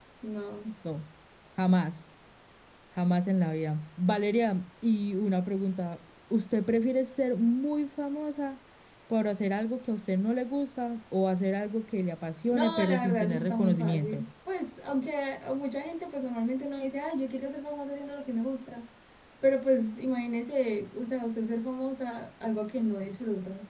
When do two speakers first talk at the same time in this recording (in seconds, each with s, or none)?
12.5 s